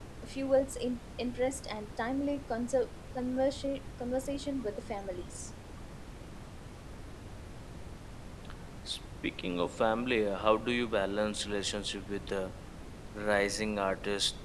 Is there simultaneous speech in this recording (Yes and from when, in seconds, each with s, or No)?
No